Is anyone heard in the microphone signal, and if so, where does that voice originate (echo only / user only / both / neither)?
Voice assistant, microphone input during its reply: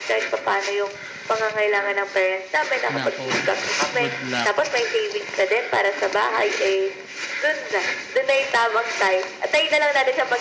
both